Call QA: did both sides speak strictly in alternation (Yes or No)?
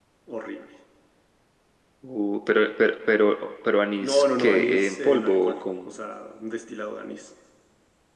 No